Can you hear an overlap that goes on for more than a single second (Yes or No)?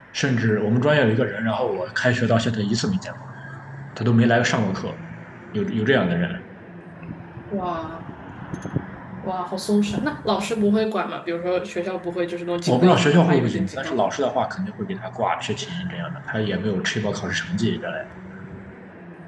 Yes